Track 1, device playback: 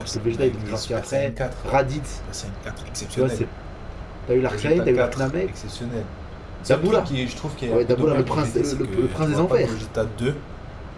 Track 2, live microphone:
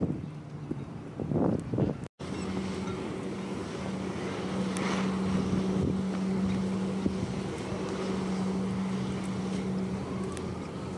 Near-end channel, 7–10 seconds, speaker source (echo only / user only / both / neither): neither